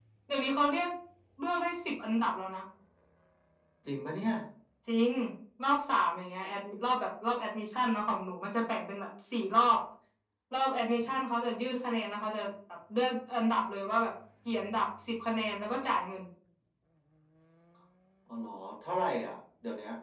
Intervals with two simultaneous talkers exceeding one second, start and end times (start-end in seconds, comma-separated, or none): none